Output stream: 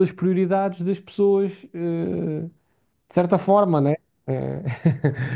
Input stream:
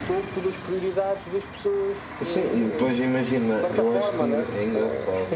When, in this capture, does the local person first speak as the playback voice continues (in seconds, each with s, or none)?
2.2 s